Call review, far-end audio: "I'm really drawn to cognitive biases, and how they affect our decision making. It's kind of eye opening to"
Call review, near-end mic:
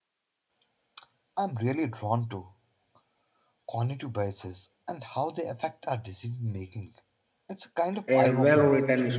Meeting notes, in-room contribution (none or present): present